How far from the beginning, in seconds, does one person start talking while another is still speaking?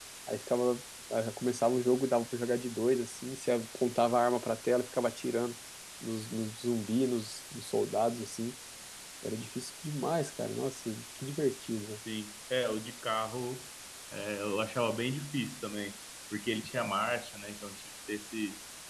none

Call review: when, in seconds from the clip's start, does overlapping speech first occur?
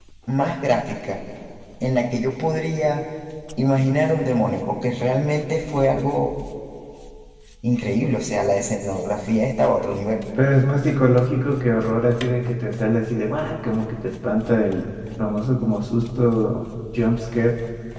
none

